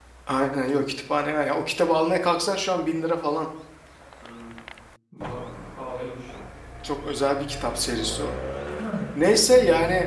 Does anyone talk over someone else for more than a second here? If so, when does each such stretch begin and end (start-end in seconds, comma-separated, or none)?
none